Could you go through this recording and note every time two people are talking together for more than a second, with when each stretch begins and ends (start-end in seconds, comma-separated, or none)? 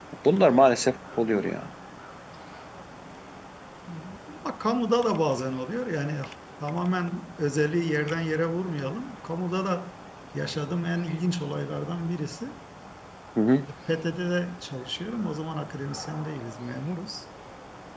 none